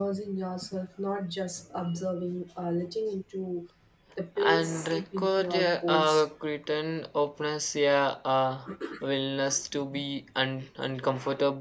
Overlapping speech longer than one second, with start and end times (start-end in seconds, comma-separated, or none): 4.4-6.2